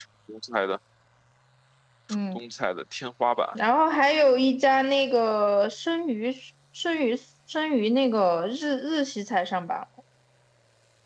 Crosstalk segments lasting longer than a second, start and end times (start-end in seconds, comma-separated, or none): none